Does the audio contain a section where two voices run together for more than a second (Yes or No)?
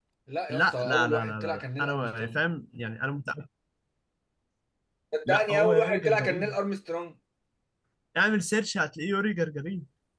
Yes